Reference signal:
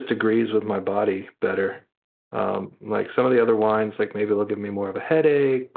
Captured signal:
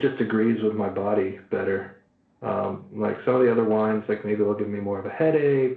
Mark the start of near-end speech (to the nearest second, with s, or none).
none